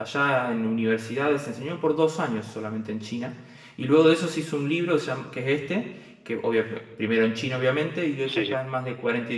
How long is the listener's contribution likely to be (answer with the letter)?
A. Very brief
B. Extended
A